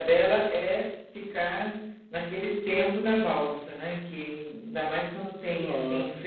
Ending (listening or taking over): taking over